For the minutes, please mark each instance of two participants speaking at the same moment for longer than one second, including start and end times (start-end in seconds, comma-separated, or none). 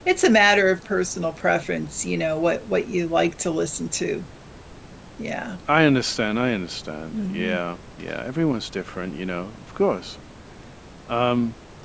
none